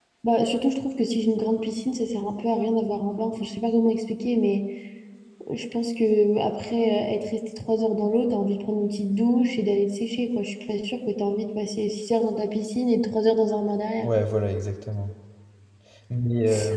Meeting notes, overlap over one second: none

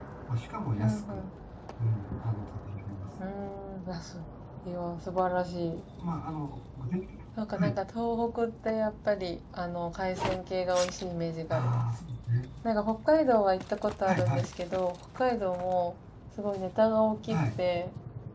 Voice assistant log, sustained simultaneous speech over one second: none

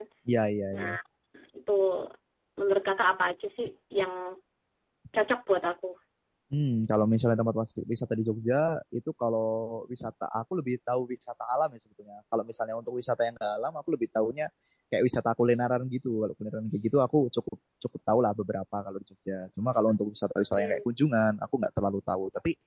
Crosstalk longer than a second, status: none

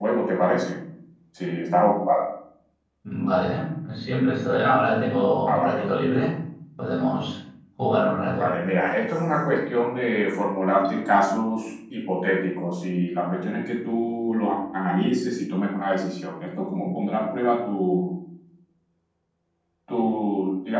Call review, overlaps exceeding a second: none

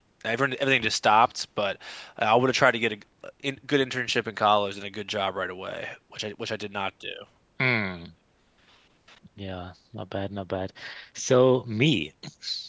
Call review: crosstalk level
none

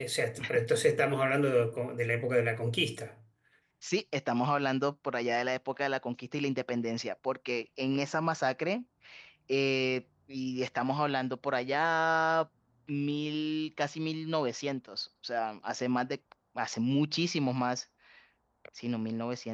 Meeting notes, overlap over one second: none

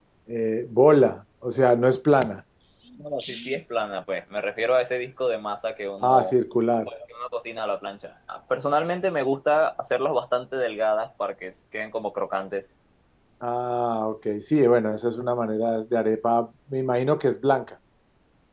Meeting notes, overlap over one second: none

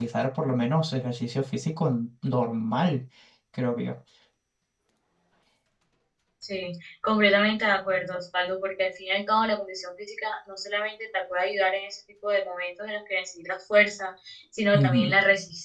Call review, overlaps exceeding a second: none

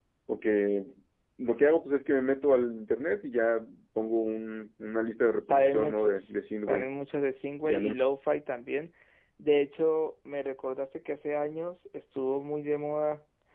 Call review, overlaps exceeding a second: present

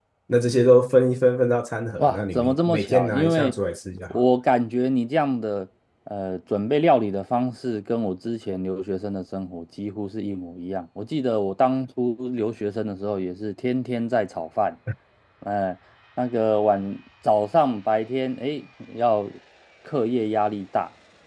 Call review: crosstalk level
present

